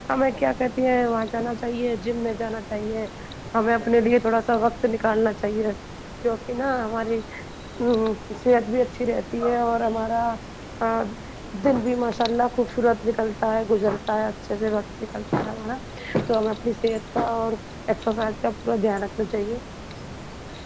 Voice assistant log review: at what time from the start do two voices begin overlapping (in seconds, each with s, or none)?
none